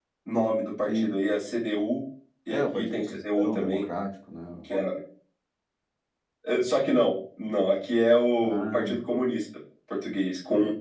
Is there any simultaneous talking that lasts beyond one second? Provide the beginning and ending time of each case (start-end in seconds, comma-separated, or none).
2.5-3.8